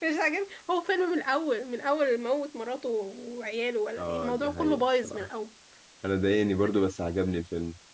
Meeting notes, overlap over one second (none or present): present